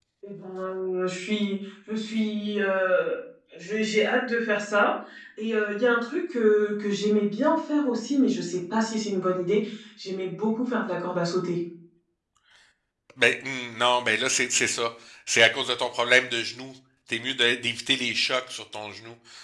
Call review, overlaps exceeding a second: none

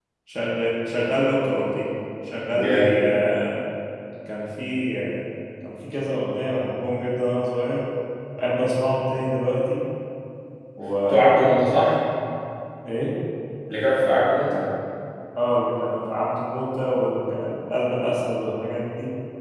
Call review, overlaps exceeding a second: none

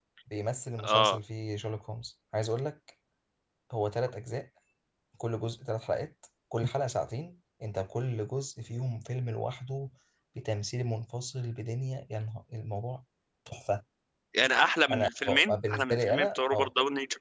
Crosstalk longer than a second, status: present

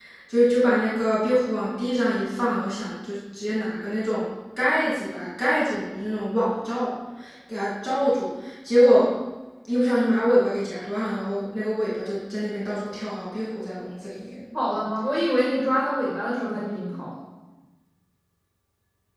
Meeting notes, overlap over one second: none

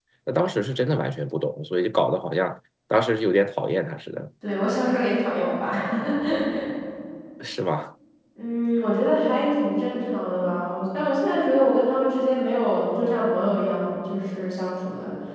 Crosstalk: none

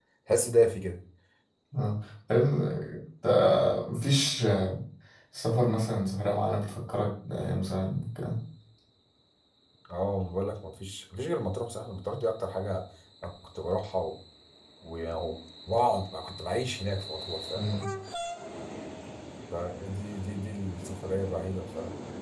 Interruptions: none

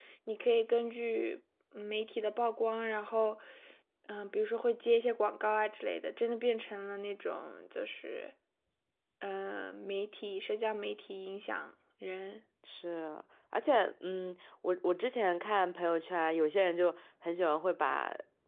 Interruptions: none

